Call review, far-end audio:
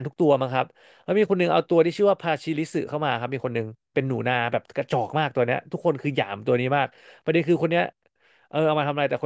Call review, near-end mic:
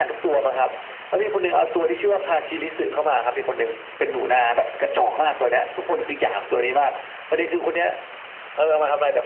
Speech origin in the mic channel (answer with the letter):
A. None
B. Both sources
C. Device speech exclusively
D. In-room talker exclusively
C